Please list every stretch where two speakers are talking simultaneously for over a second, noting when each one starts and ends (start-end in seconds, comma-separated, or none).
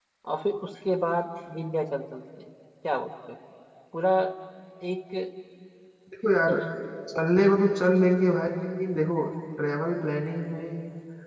none